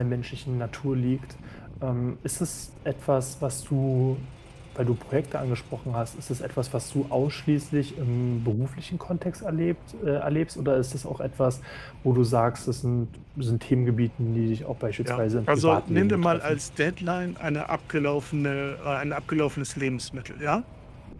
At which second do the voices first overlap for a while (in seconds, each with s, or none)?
15.0 s